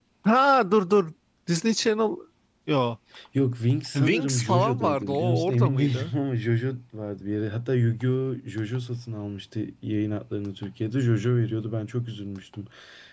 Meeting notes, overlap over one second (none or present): present